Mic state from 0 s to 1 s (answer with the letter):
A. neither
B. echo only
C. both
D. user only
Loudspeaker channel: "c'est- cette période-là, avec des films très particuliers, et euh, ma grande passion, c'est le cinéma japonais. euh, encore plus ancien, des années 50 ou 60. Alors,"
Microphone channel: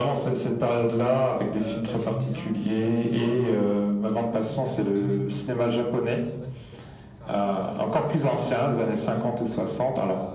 B